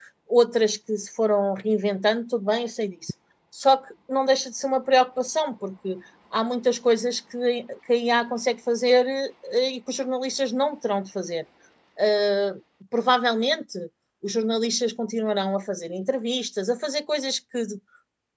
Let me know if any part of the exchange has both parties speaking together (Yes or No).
No